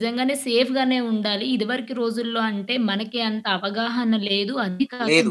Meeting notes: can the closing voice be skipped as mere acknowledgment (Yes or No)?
Yes